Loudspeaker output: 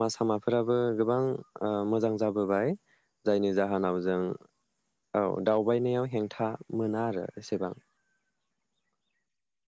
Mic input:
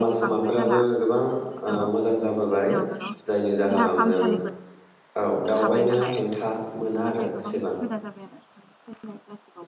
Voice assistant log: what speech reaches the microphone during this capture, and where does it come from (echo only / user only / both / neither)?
both